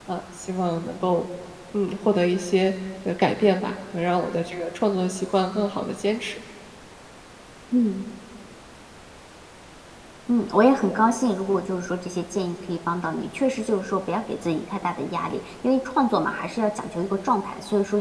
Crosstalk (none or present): none